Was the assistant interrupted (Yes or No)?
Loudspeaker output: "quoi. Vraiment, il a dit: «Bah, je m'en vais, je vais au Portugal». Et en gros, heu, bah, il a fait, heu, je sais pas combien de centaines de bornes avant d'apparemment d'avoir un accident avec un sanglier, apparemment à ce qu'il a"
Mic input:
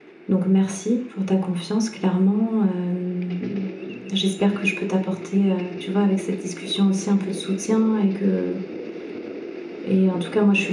Yes